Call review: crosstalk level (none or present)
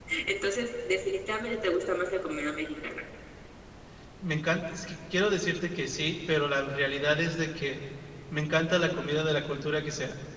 none